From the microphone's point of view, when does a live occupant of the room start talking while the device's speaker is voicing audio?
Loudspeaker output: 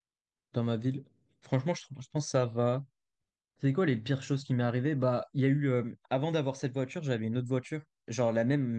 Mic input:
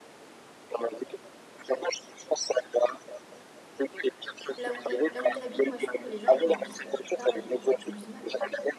4.6 s

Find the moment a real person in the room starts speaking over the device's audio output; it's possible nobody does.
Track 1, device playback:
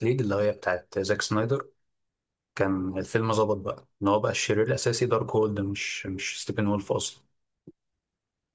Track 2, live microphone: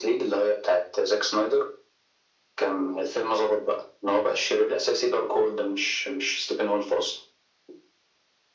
none

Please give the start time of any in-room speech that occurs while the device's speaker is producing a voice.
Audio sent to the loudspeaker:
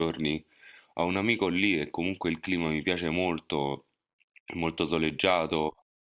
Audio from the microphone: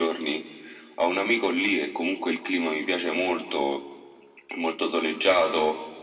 none

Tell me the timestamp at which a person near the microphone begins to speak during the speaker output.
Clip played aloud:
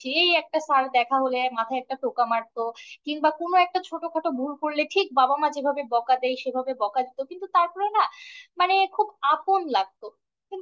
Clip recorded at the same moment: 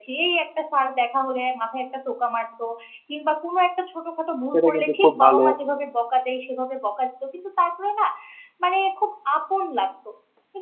4.5 s

